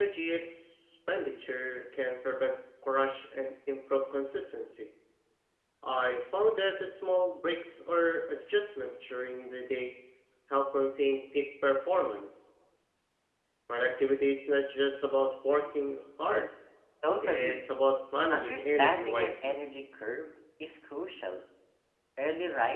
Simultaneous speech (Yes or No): Yes